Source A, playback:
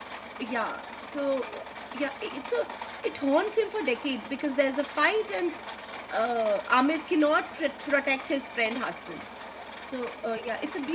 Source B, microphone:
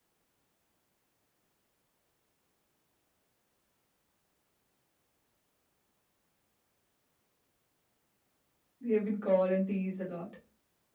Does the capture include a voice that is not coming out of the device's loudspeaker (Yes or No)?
Yes